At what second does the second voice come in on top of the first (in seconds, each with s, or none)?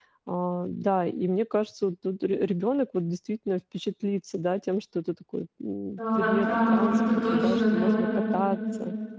6.0 s